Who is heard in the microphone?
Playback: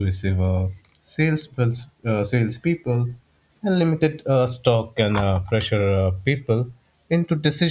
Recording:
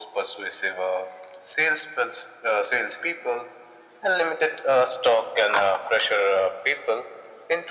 echo only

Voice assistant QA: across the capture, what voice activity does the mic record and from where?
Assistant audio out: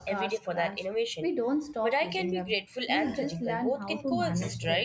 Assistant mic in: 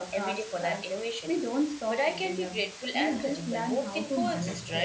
echo only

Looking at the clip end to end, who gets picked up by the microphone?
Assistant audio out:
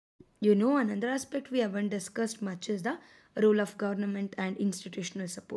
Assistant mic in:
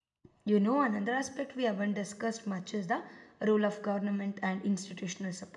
echo only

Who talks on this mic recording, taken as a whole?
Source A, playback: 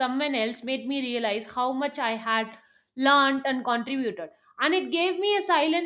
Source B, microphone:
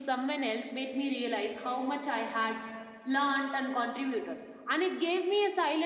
echo only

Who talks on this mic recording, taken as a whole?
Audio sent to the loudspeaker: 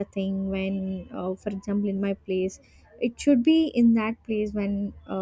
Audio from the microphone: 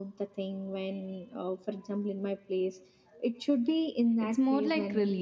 both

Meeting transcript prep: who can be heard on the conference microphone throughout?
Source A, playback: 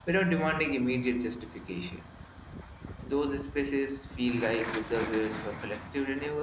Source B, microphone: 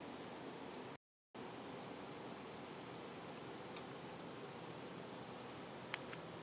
neither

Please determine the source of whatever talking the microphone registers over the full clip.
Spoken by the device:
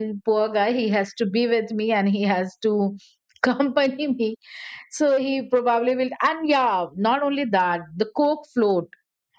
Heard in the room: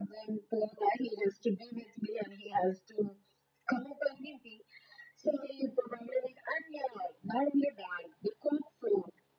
echo only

